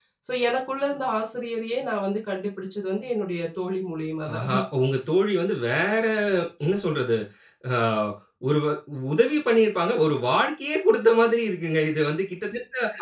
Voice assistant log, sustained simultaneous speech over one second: none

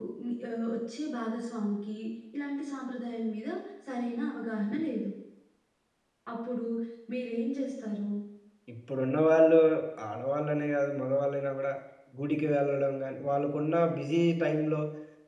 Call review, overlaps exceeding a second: none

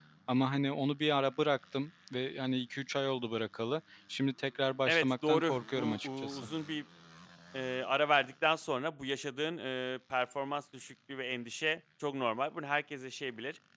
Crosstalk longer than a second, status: present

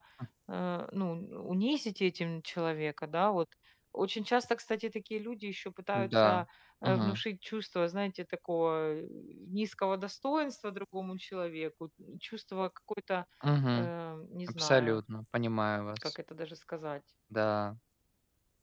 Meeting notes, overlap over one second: none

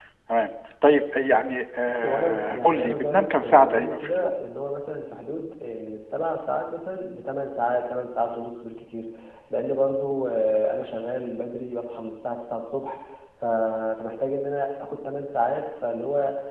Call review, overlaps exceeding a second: present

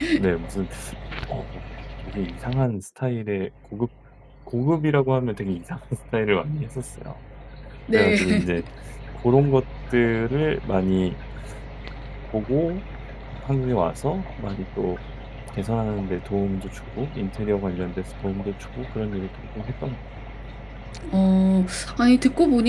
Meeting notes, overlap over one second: none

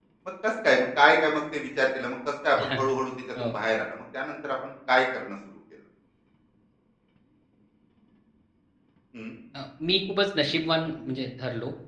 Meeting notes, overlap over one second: none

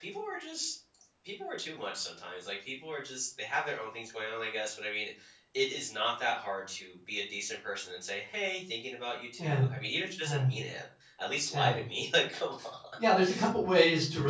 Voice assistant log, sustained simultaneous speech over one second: none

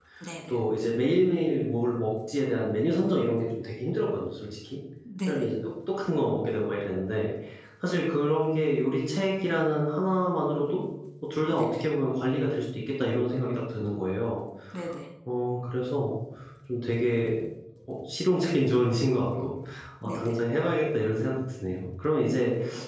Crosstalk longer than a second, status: none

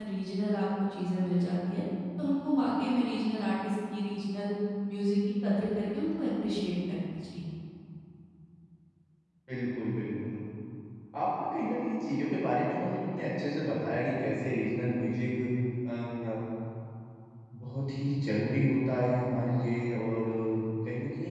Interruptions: none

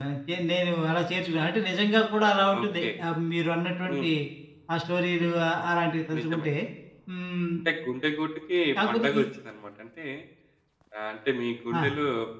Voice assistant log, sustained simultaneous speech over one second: none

